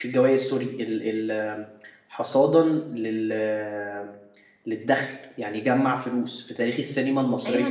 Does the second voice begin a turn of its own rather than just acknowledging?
Yes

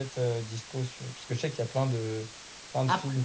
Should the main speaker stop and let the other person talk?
No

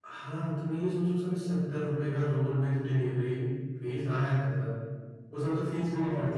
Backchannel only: No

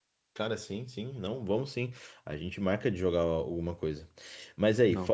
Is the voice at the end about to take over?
No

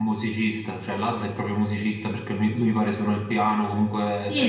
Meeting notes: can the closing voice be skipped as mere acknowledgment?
No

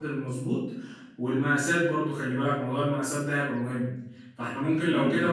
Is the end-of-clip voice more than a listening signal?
No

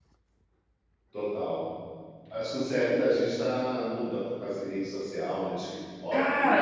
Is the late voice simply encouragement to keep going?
No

